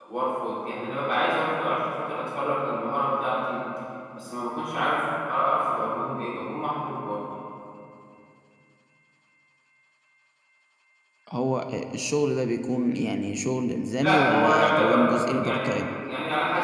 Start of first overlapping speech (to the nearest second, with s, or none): 14 s